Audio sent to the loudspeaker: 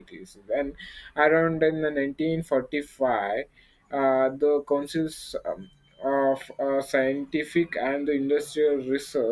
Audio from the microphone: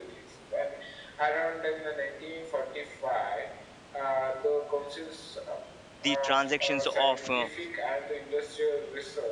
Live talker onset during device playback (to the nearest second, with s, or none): 6 s